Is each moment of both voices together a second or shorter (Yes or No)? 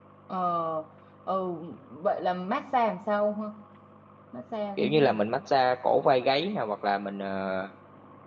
Yes